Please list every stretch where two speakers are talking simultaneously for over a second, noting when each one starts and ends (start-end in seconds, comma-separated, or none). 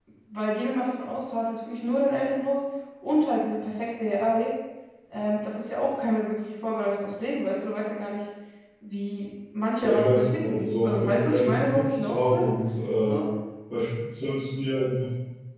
9.8-12.5